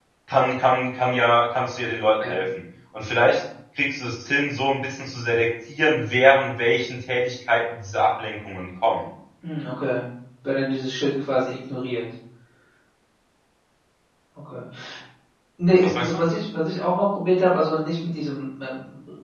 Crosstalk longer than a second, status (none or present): none